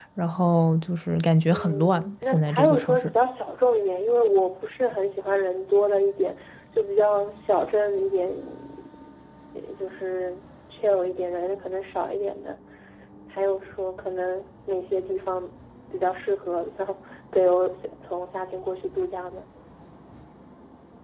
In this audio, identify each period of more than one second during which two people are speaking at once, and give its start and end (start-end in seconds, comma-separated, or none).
1.5-3.1